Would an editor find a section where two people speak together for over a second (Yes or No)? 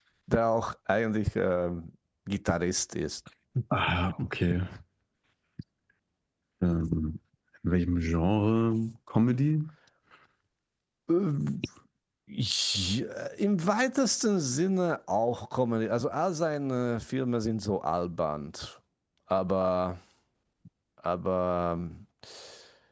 No